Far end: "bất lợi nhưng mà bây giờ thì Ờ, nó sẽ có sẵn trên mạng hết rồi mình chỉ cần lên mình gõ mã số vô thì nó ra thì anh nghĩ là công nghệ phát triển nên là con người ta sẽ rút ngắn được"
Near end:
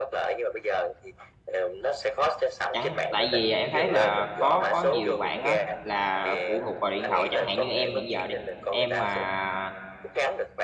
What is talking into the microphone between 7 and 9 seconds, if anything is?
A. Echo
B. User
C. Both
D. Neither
C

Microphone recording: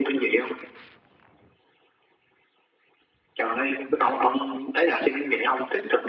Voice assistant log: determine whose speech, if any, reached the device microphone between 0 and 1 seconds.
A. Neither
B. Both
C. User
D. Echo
D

